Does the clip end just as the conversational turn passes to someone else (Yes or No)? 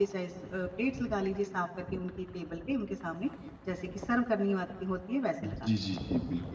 Yes